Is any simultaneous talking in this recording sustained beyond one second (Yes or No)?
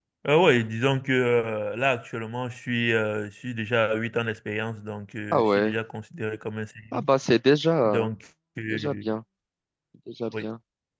No